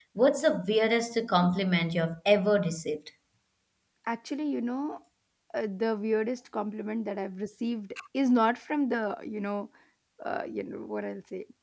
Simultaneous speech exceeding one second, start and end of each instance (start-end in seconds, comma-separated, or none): none